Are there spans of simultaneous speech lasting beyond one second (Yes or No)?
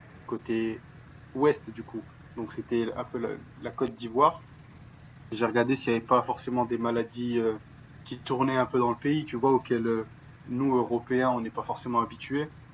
No